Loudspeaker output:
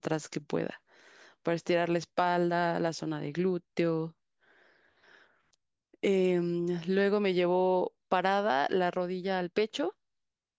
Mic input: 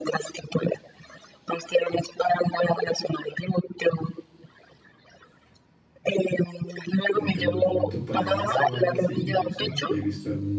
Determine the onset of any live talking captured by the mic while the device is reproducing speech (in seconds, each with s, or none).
7.1 s